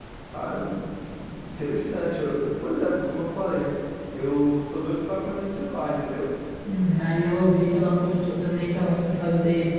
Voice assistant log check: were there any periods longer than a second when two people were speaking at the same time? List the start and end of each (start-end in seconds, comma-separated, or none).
none